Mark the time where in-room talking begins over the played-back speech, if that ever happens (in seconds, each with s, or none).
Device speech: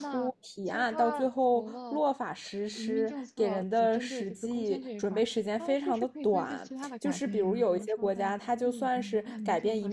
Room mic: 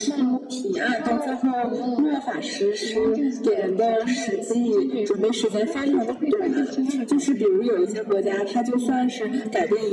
none